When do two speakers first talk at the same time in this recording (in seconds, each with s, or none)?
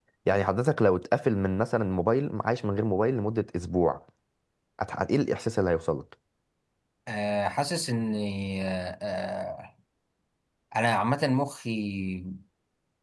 none